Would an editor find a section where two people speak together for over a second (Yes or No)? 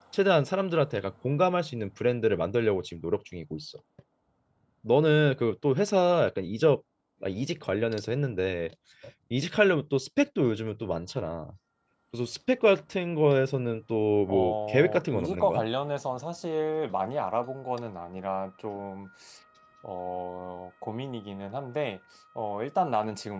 Yes